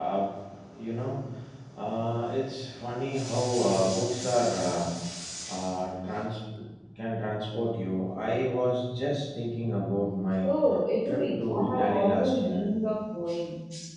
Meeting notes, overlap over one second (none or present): present